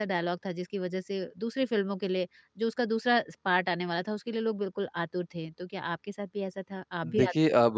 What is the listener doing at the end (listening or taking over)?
taking over